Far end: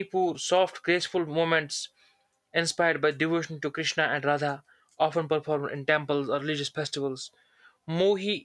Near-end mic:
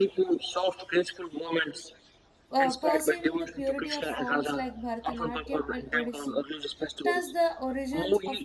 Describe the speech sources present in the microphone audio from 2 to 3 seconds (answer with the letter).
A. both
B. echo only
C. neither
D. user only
A